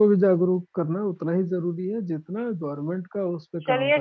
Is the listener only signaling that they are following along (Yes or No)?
No